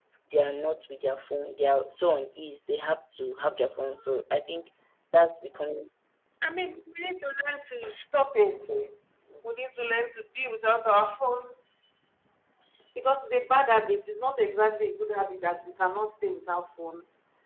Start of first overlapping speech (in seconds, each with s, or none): none